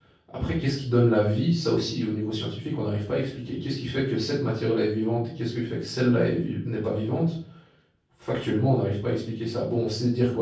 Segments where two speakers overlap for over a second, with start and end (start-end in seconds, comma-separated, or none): none